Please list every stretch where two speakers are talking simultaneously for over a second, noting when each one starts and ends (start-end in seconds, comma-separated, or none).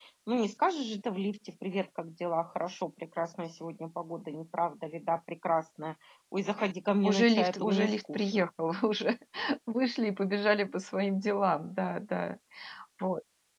7.0-8.5